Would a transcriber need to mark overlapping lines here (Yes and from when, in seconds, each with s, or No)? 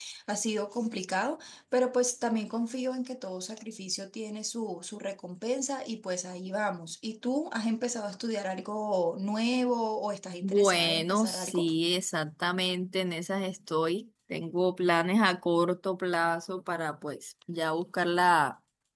Yes, from 10.4 s